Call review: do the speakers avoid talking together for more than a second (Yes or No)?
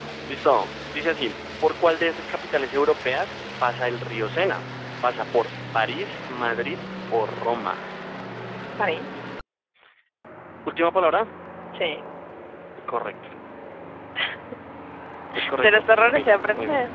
No